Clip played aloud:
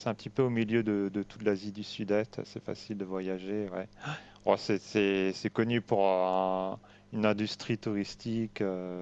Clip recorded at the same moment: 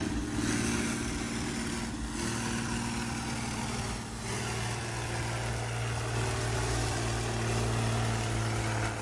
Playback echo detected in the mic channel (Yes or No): No